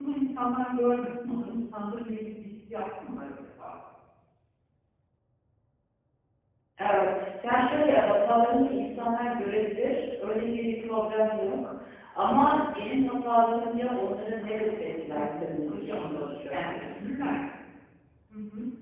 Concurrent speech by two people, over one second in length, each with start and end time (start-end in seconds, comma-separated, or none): 14.4-16.9